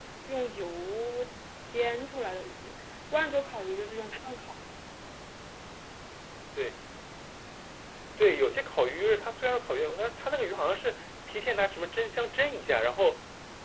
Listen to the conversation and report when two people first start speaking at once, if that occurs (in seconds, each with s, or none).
none